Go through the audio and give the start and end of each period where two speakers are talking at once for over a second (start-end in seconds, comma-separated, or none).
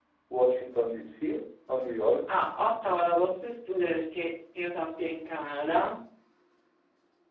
none